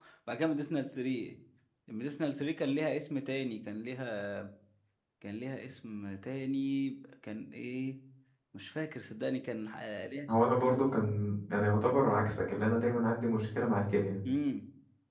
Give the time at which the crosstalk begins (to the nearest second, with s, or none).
none